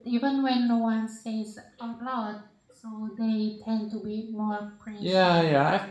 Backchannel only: No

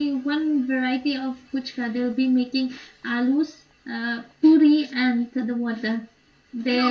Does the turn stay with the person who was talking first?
No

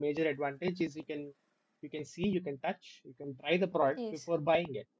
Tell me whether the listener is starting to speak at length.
No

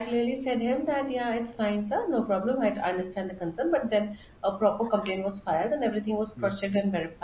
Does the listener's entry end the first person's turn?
No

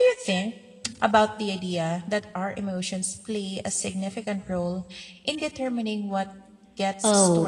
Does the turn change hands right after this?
Yes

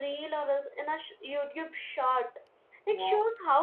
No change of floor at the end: Yes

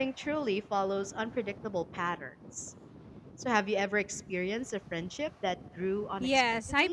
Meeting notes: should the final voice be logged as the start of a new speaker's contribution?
Yes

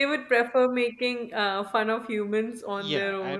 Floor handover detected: Yes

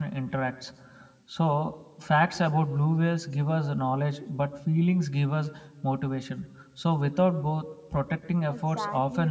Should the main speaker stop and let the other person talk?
Yes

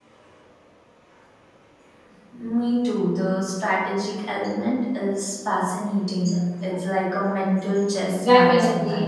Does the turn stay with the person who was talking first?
No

